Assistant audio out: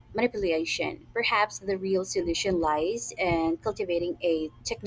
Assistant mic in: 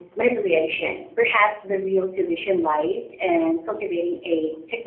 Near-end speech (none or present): none